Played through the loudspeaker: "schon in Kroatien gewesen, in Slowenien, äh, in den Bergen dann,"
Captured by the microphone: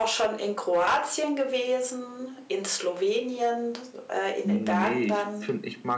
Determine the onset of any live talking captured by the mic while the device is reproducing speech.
4 s

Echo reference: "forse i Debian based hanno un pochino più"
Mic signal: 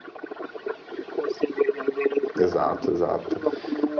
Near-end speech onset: 2 s

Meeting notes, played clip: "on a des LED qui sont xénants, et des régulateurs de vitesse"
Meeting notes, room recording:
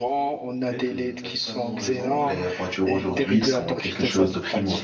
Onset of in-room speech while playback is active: 1 s

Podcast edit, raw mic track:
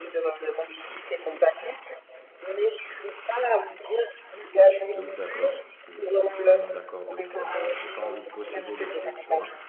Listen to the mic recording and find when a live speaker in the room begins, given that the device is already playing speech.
5 s

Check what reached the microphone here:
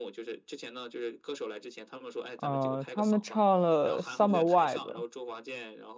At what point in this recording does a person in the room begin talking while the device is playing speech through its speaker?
2 s

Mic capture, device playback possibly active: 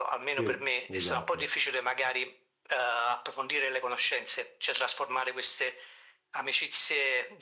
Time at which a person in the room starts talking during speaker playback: 0 s

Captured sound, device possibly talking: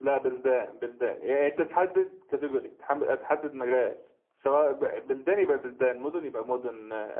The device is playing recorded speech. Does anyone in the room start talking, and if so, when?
none

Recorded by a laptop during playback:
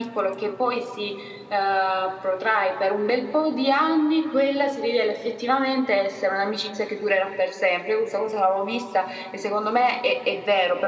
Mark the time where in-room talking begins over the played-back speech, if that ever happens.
none

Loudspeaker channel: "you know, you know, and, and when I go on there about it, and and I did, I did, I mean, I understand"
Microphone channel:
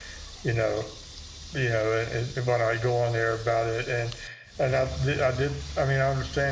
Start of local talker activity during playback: none

